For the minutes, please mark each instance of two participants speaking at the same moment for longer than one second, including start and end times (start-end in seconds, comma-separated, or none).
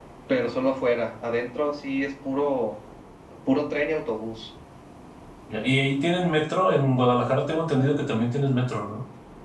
none